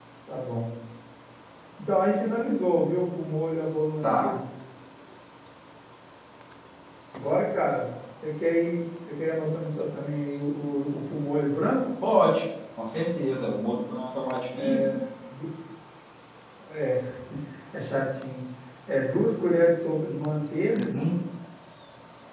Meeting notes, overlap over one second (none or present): none